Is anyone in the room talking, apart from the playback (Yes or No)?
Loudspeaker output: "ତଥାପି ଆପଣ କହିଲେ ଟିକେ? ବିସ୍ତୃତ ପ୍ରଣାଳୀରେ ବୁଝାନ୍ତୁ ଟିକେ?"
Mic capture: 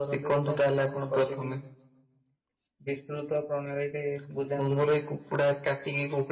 Yes